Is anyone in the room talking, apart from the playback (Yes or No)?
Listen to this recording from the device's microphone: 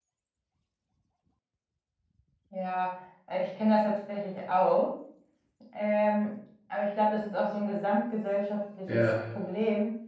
Yes